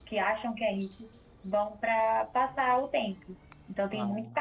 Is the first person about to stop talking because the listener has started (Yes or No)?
No